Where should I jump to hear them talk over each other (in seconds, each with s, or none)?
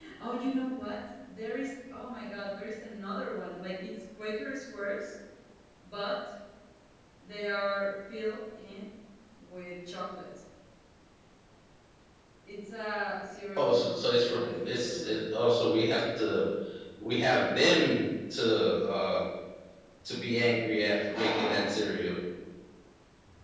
13.6 s